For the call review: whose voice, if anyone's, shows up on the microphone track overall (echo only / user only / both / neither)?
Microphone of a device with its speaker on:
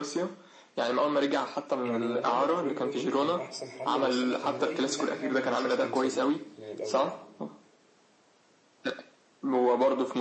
both